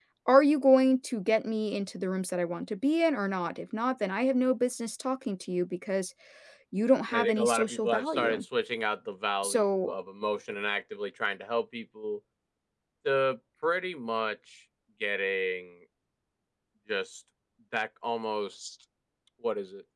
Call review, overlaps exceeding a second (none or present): present